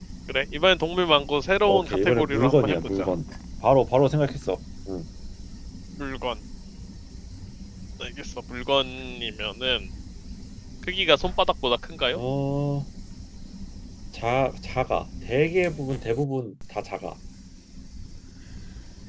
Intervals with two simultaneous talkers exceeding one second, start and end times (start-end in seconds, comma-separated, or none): 1.7-3.1